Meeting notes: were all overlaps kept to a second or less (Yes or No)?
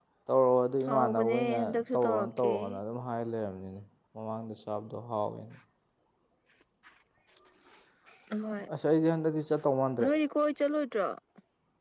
No